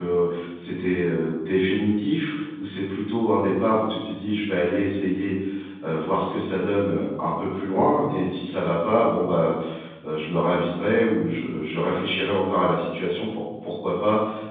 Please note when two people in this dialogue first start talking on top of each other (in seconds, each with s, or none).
none